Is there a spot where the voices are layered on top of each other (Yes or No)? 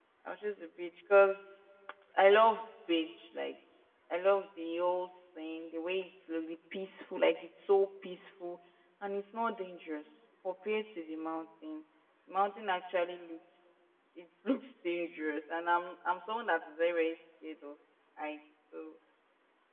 No